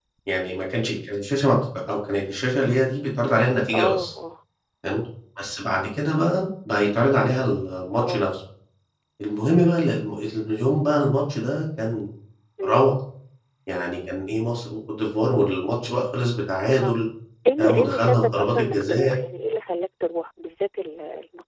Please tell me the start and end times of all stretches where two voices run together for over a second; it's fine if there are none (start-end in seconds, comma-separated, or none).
17.6-19.1